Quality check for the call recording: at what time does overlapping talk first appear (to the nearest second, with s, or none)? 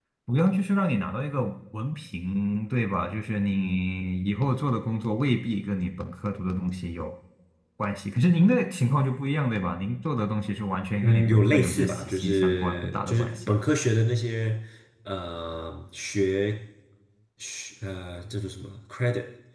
11 s